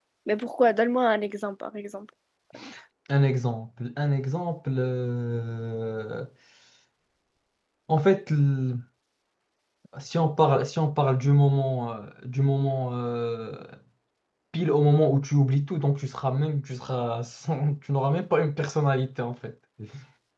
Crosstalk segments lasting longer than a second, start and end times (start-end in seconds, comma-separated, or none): none